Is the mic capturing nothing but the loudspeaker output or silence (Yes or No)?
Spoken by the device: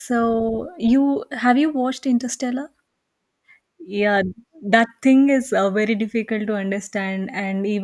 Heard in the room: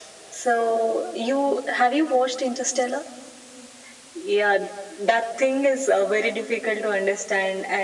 Yes